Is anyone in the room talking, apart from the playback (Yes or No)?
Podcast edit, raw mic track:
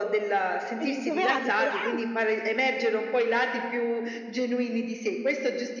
Yes